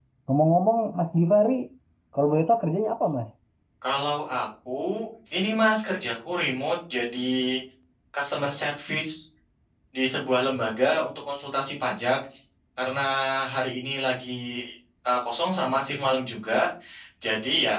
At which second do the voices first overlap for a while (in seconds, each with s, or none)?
none